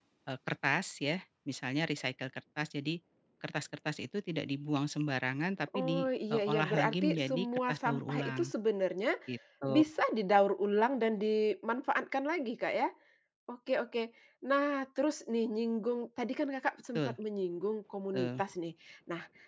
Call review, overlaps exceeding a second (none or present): present